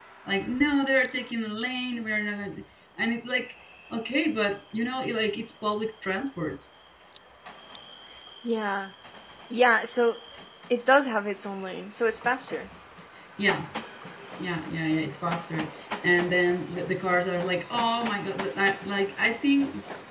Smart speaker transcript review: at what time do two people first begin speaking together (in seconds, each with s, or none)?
none